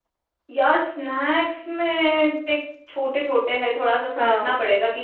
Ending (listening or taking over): listening